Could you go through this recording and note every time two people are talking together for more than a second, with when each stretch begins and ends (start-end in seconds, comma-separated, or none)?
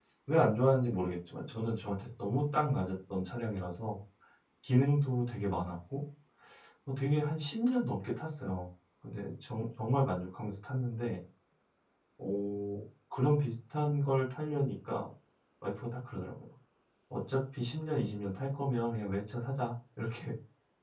none